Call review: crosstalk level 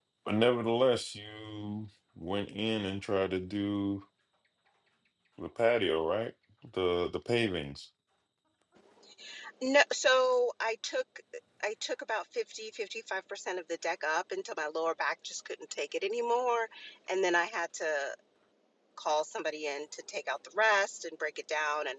none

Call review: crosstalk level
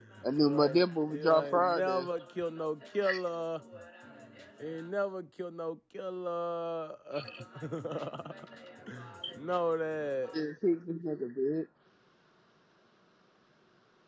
present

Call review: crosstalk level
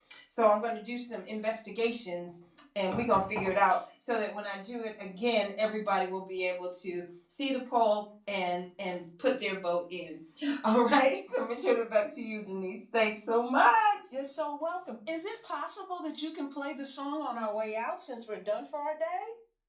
none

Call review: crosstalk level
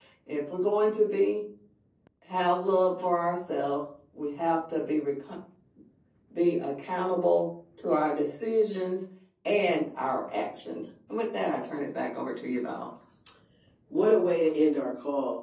none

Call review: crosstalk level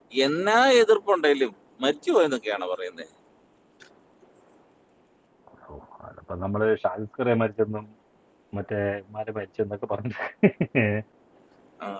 none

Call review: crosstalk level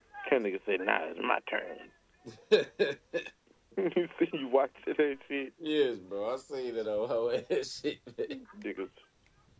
none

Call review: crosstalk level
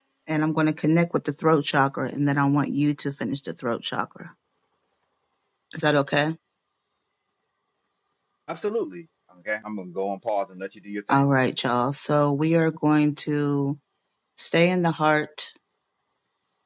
none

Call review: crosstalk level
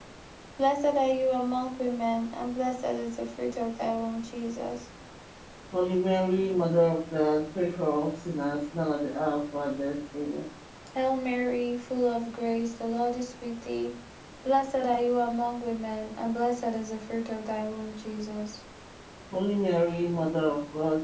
none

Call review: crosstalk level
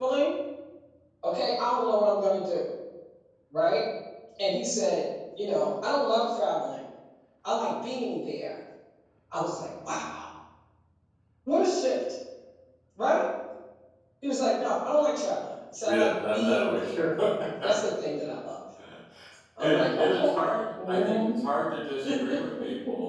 present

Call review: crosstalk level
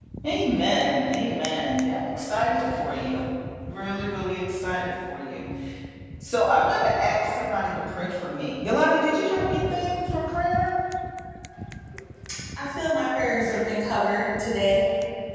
none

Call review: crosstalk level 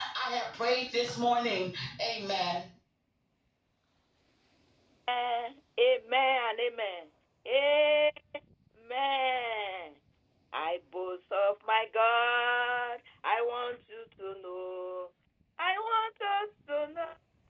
none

